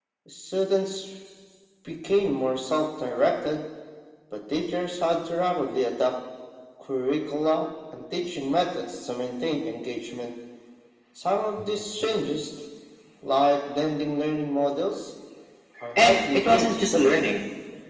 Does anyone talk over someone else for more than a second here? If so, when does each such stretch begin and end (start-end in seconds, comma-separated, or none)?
16.0-17.3